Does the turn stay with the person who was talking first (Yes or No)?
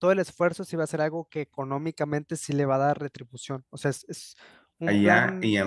No